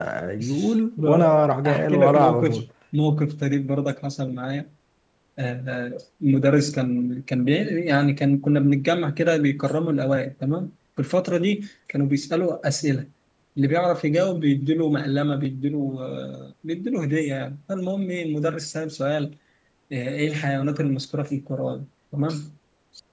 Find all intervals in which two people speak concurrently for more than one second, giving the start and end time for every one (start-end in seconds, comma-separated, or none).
1.0-2.6